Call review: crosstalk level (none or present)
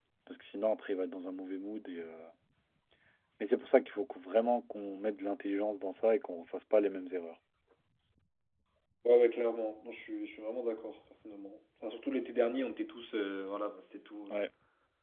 none